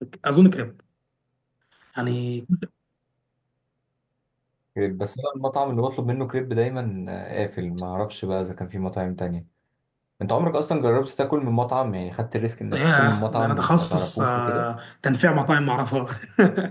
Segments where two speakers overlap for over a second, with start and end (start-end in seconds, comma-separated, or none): 12.7-14.7